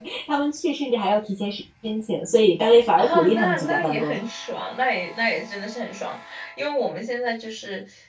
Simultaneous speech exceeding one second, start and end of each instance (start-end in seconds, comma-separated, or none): 3.0-4.2